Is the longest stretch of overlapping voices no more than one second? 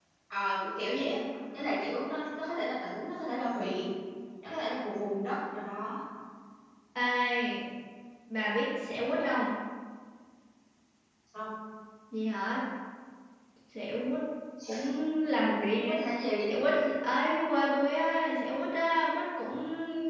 Yes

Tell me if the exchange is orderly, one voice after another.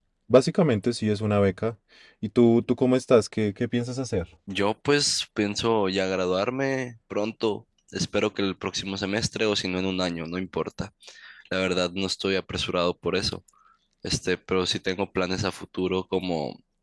Yes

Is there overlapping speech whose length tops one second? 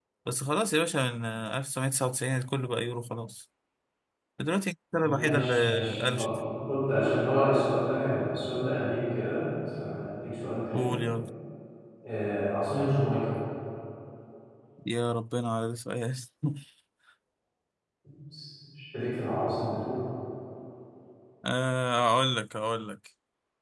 Yes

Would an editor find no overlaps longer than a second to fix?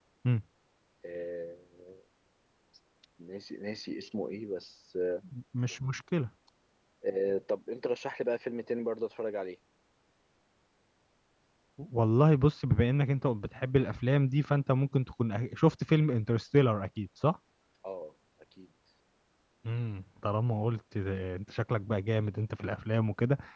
Yes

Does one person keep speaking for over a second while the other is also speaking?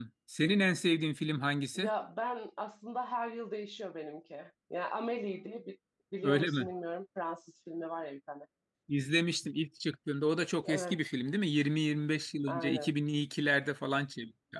No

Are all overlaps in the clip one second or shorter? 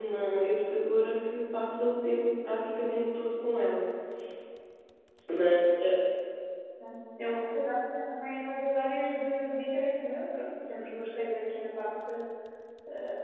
Yes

